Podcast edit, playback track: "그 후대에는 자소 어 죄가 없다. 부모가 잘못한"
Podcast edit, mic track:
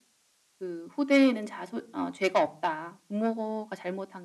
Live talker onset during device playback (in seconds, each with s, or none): none